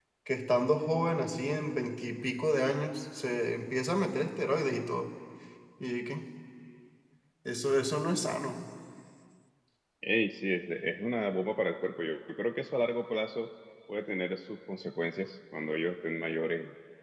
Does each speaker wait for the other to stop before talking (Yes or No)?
Yes